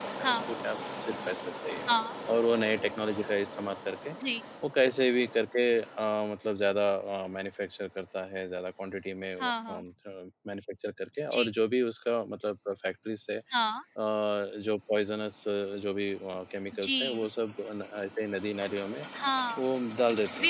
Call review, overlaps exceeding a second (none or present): none